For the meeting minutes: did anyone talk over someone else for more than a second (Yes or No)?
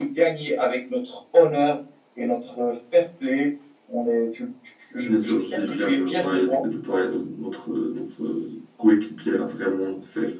Yes